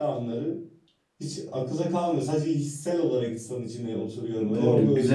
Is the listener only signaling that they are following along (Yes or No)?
No